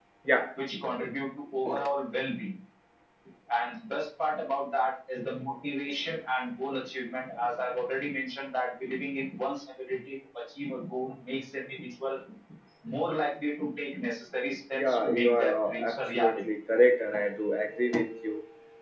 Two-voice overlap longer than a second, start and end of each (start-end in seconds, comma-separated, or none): 14.8-16.4